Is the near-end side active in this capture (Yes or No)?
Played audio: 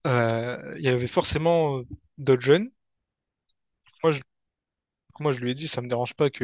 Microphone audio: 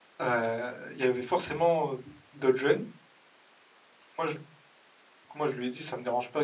No